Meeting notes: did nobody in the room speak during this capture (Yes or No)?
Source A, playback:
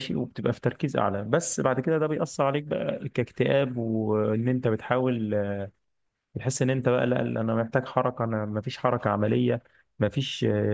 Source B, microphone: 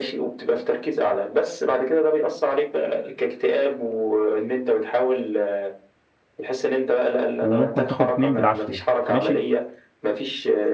No